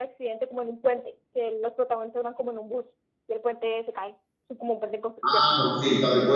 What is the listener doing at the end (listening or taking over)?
taking over